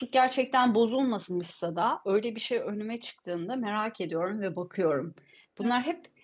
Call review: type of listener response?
listening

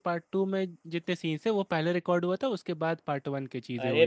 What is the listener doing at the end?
taking over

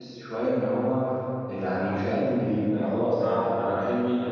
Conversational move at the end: listening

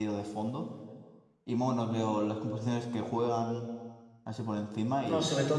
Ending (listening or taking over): taking over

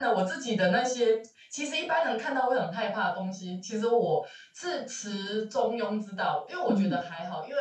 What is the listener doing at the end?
listening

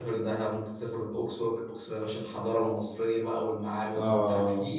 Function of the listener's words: listening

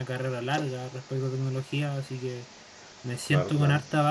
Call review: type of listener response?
listening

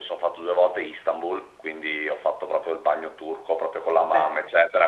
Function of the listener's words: listening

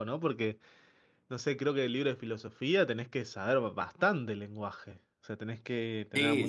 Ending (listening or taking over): taking over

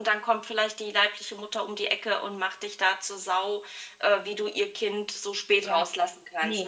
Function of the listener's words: taking over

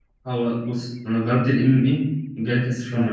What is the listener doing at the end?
taking over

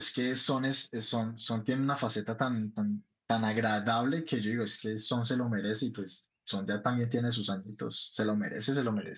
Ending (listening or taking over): taking over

